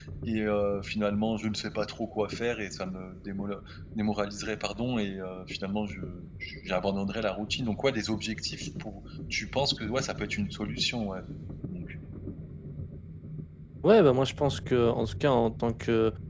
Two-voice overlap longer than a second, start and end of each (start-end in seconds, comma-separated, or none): none